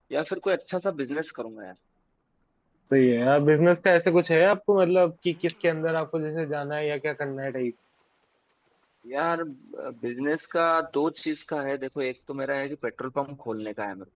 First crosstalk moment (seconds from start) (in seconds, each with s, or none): none